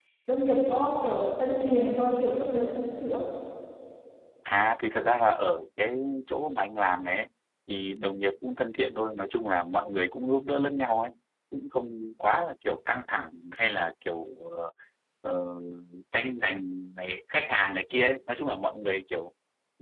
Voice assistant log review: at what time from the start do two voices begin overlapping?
none

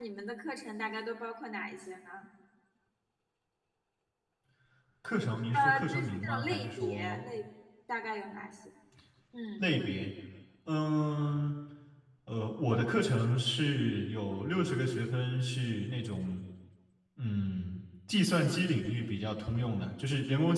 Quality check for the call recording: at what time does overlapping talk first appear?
6 s

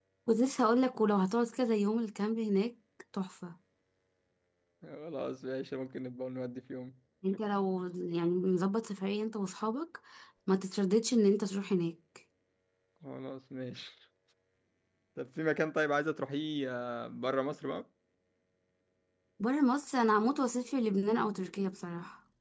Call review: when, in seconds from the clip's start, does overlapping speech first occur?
none

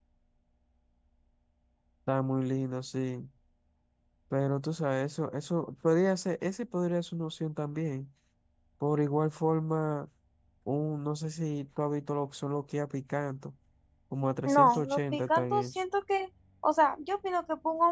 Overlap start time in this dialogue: 14 s

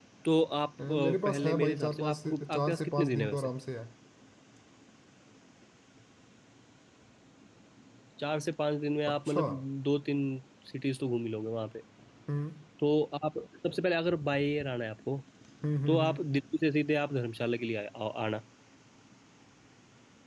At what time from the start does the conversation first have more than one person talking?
1 s

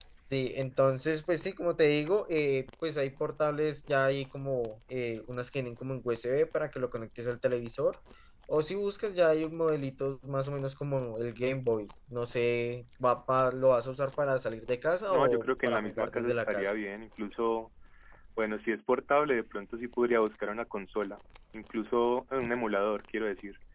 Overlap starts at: 15 s

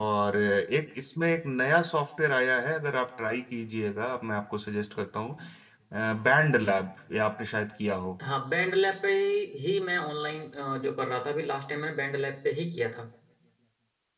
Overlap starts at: none

